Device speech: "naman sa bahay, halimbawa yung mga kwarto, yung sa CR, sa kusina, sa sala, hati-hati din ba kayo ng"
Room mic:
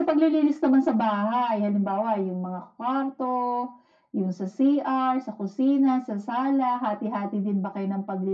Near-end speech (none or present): none